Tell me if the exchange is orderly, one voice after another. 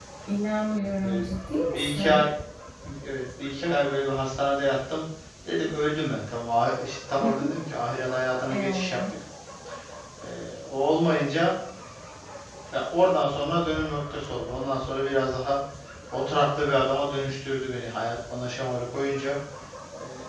No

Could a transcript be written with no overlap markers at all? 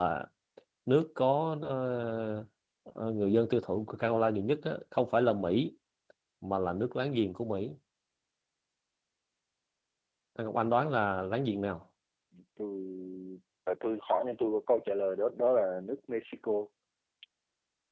Yes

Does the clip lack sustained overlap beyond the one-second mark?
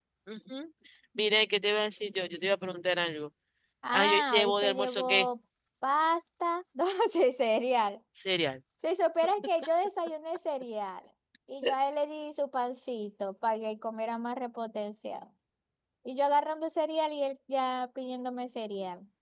No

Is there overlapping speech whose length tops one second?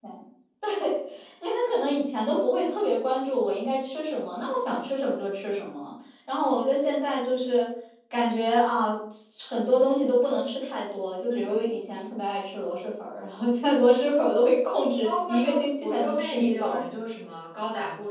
Yes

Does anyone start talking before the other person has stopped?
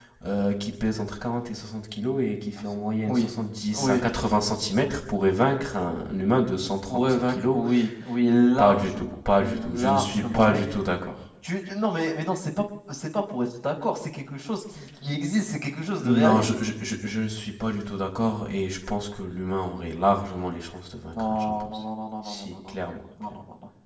Yes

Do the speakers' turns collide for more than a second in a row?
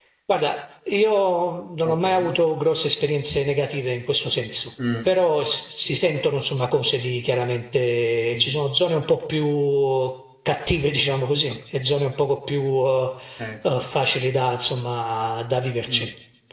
No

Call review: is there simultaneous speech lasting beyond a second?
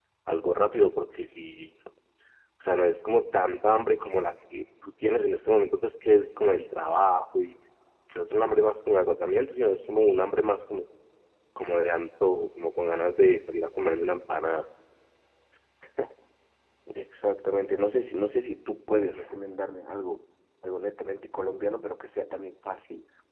No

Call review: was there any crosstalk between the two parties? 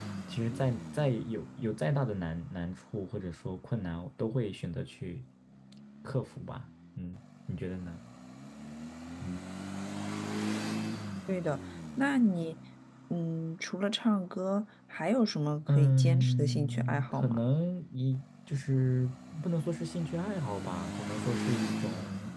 Yes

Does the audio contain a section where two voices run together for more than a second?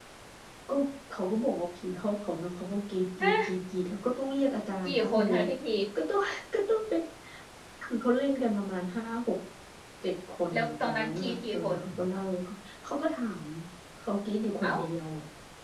Yes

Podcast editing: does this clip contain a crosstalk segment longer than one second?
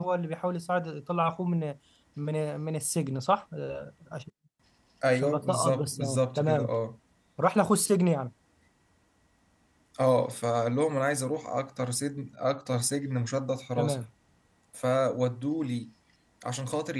Yes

